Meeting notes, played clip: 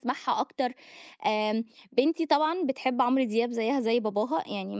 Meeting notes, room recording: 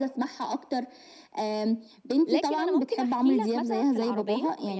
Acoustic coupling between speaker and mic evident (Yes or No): Yes